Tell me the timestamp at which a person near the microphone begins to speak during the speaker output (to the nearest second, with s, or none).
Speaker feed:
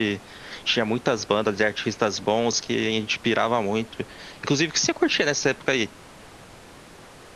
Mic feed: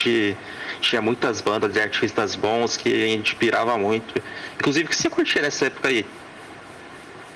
none